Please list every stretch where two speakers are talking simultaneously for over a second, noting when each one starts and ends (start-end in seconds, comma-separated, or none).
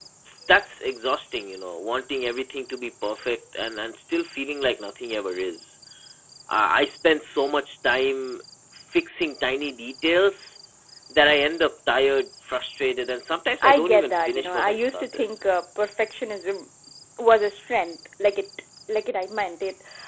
13.6-15.2